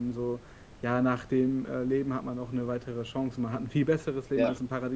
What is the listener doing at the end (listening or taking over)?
listening